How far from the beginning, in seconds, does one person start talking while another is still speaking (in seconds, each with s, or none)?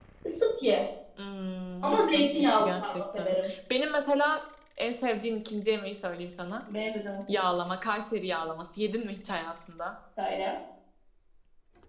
1.8 s